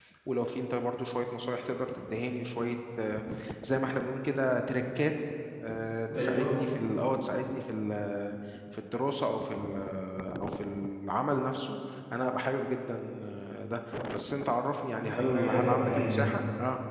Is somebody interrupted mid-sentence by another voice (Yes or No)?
Yes